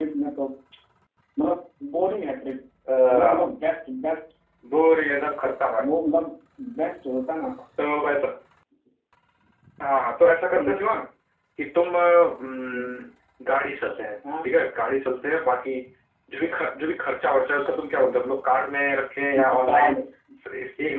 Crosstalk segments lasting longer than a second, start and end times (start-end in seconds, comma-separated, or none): none